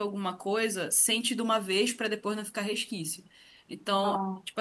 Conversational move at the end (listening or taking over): listening